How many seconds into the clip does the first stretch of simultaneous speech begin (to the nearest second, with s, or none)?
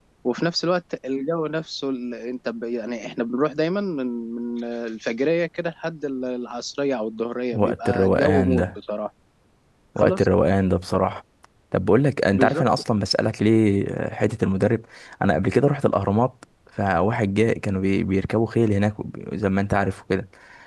8 s